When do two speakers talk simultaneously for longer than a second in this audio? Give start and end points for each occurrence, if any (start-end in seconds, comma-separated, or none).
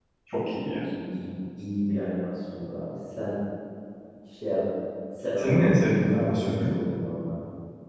5.4-6.6